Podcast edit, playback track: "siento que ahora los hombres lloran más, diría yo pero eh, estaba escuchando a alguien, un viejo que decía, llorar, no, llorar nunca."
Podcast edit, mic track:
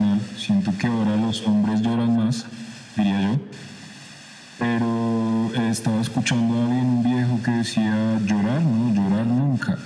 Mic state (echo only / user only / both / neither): echo only